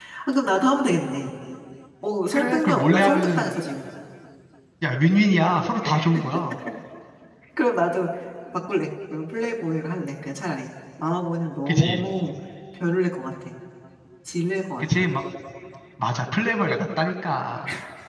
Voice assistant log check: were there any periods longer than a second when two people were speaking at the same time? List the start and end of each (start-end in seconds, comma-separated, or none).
2.3-3.6